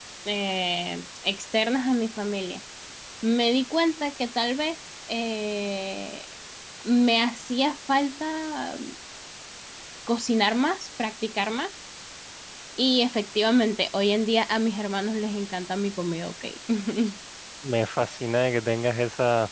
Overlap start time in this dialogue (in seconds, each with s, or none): none